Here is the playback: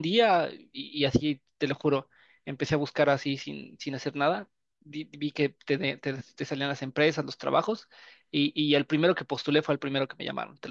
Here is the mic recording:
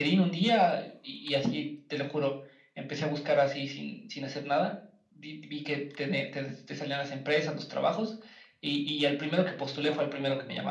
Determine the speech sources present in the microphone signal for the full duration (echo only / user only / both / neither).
both